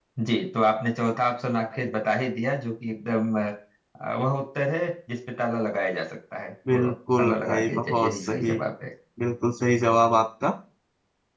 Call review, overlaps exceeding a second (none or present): present